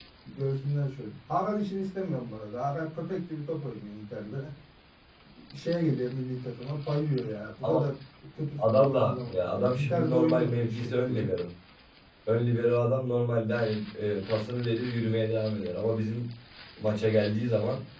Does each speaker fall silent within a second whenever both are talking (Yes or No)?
No